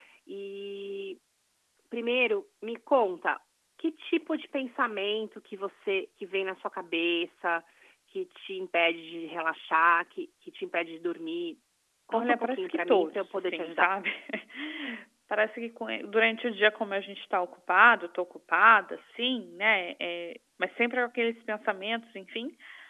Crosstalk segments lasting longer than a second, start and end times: 12.1-13.9

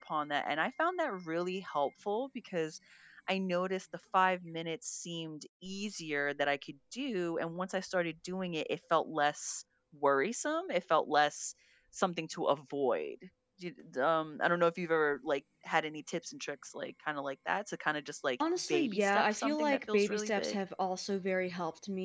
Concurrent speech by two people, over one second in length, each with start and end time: 18.7-20.6

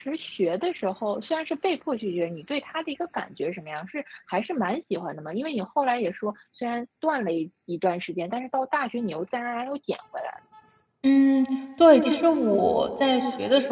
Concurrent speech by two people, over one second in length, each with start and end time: none

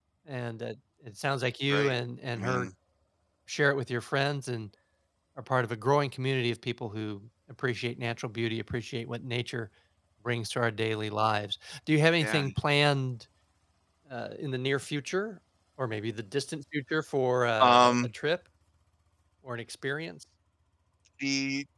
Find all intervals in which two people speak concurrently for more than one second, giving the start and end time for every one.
none

